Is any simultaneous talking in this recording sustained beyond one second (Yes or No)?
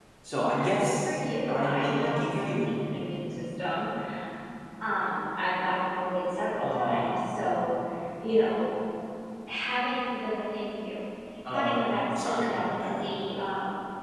Yes